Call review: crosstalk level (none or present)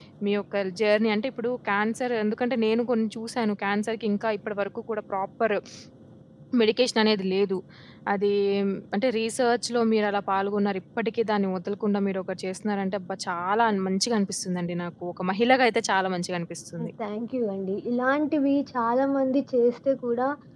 none